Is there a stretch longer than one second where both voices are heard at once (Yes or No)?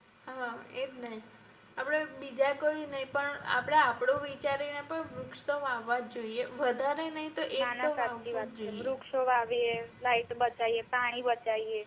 Yes